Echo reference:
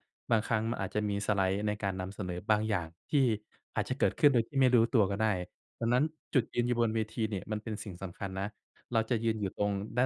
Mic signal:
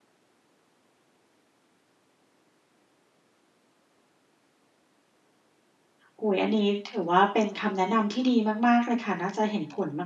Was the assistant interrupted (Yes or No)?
Yes